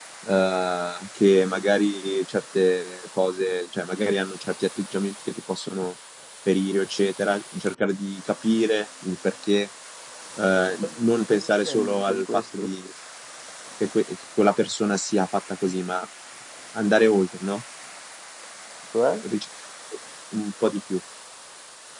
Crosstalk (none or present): present